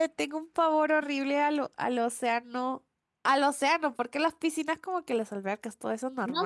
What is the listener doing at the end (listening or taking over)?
taking over